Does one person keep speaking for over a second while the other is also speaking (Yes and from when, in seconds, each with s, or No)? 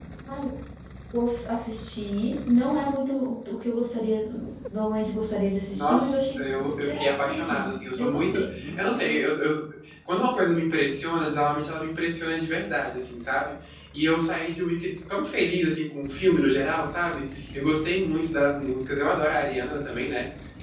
Yes, from 5.7 s